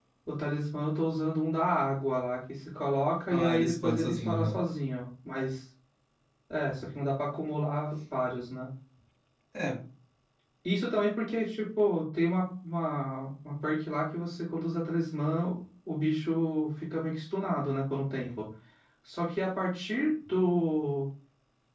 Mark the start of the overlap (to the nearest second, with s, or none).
3 s